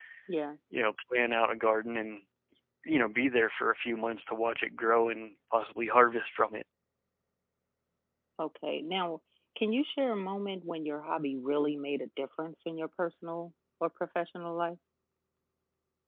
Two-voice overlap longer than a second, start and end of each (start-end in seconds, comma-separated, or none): none